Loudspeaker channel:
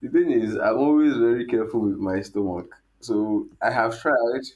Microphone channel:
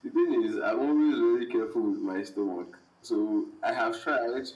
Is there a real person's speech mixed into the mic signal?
No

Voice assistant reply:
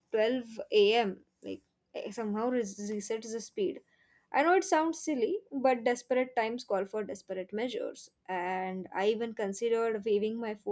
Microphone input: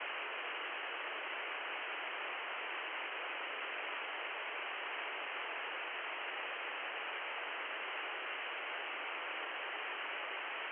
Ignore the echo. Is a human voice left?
No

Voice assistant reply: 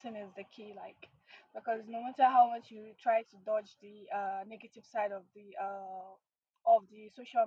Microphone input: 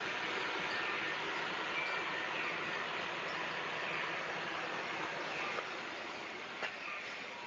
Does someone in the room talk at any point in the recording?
No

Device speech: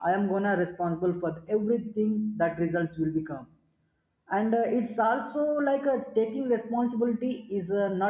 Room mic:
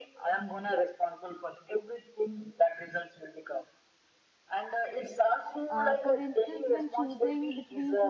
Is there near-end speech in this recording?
Yes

